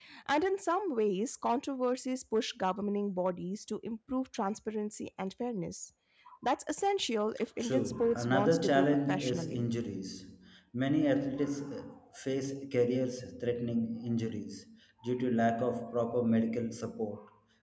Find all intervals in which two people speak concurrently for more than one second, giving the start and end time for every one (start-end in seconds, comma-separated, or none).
7.6-9.7